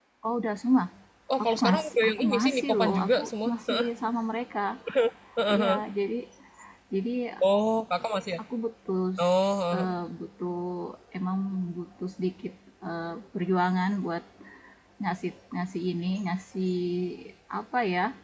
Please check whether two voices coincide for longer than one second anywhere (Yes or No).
Yes